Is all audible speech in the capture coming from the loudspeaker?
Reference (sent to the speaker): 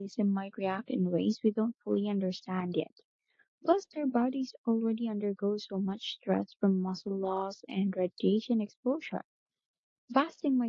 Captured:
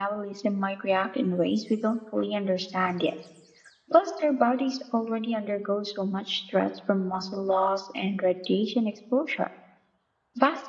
Yes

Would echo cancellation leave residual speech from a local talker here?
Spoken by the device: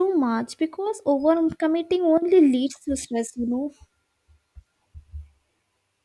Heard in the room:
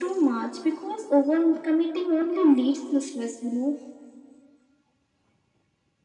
No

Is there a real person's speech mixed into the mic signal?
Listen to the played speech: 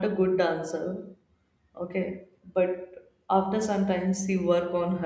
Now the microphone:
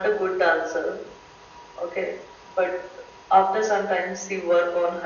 No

